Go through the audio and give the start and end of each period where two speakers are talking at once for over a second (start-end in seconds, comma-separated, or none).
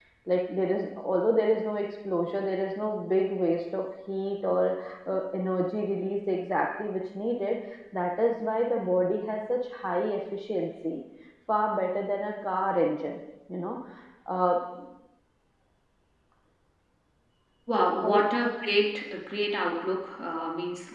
none